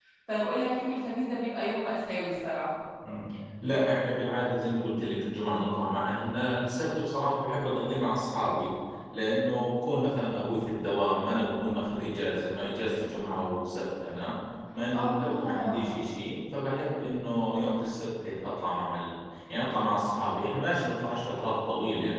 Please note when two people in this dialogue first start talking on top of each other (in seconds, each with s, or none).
14.9 s